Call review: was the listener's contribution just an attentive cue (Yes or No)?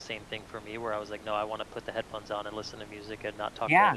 No